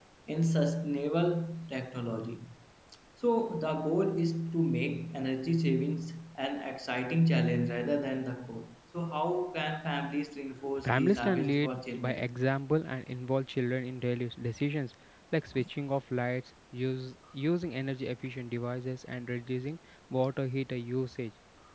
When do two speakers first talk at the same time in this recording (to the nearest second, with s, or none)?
11 s